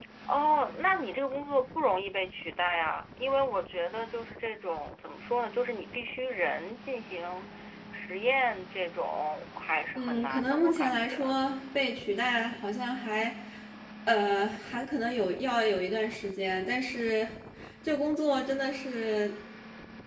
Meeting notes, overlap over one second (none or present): present